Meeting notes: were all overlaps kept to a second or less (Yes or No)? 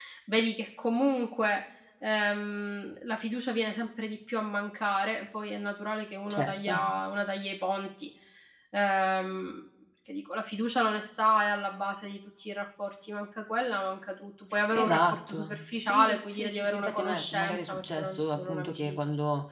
No